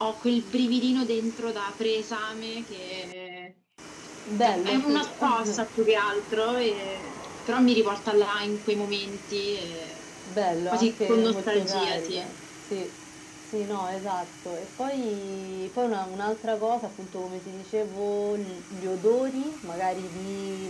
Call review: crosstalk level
present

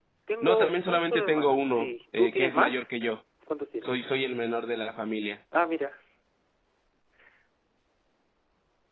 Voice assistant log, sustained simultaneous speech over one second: present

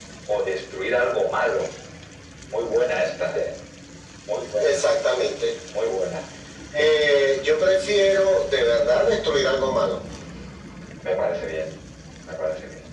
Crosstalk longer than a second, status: none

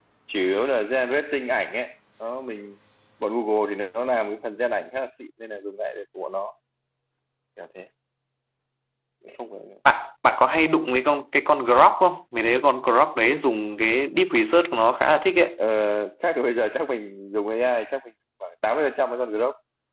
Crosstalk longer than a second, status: none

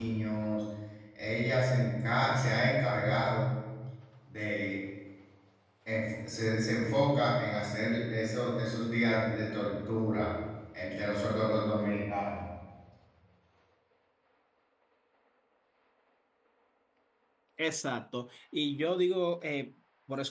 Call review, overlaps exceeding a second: none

